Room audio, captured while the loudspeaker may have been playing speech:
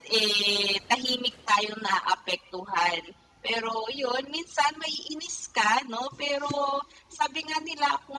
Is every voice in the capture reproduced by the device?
Yes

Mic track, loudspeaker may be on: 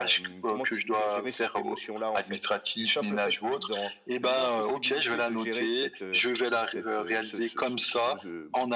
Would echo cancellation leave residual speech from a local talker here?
No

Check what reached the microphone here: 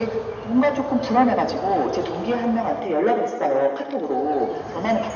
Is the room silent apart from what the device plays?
Yes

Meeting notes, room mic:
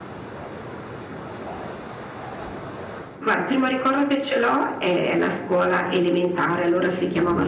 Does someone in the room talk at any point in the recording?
Yes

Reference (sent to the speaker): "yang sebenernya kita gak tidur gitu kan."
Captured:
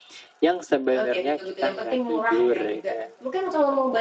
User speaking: Yes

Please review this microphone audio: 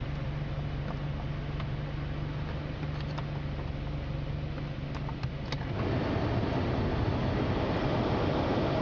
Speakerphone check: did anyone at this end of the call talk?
No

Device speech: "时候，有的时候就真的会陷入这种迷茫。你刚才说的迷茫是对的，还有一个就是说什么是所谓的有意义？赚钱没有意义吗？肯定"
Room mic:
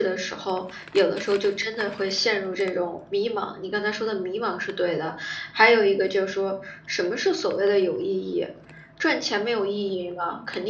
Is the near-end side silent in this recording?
Yes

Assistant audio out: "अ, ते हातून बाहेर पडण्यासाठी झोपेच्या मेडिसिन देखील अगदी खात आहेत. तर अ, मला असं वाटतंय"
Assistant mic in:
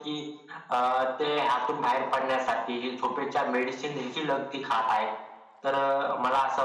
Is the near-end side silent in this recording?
Yes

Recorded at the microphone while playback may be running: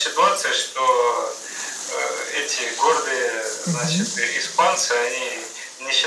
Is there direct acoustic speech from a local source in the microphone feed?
Yes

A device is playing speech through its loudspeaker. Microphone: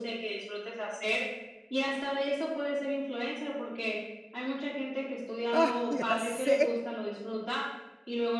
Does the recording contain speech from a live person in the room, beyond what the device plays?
Yes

